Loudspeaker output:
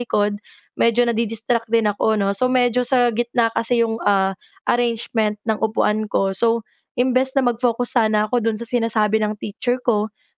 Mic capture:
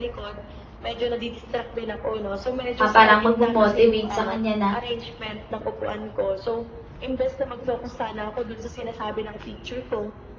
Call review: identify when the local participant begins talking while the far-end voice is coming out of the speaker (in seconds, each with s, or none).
2.8 s